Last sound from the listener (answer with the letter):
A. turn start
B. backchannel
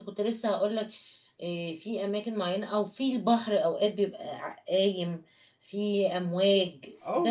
A